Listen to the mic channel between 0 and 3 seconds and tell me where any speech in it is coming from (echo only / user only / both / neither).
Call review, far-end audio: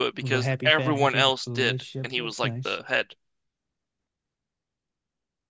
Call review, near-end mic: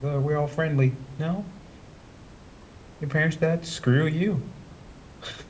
user only